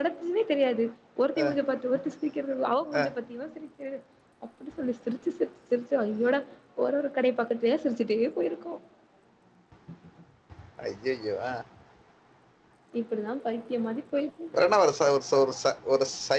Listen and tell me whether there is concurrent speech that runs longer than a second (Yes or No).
No